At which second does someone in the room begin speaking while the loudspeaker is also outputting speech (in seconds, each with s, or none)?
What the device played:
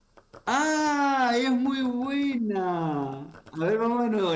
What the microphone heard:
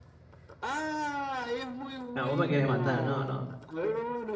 2.1 s